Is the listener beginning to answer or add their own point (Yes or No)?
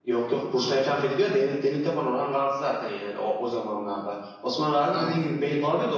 No